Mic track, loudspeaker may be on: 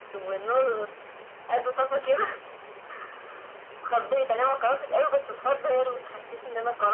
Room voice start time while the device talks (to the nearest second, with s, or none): none